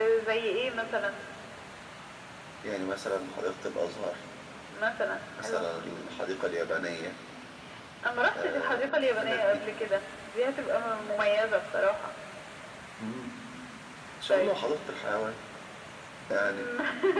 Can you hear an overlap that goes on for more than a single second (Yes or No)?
Yes